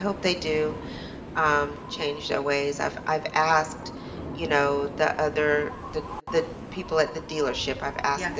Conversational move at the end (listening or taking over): listening